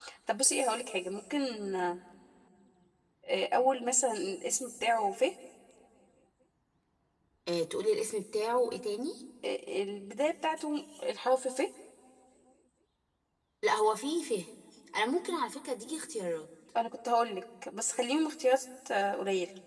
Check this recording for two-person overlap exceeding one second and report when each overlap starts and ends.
none

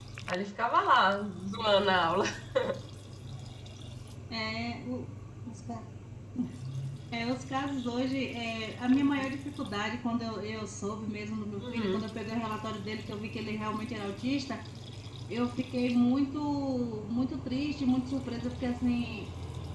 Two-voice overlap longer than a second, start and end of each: none

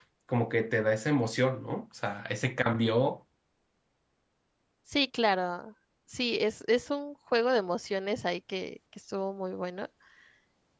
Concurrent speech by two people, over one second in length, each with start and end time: none

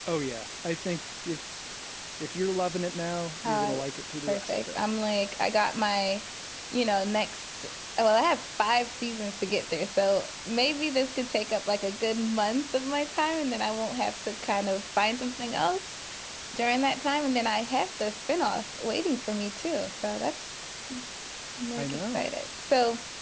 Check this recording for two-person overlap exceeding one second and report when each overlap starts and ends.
none

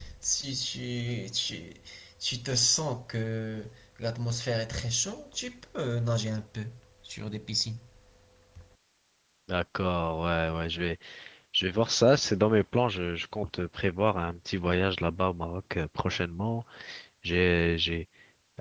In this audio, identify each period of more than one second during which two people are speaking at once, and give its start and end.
none

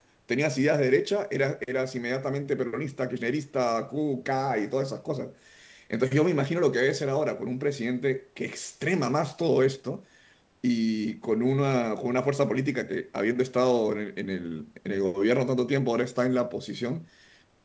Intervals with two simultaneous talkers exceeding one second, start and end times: none

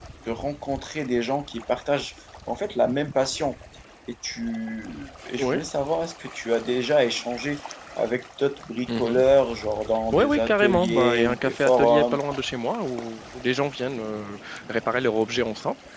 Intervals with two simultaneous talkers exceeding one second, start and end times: 10.1-12.2

